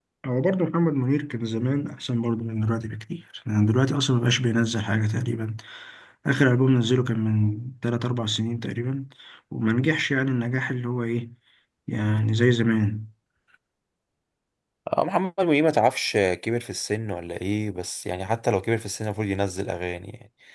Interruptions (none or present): none